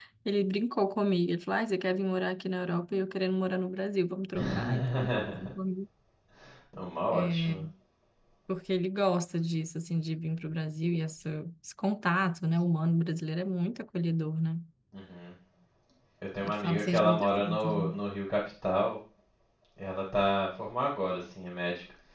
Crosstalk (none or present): present